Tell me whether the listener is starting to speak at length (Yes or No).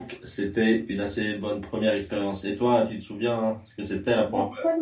Yes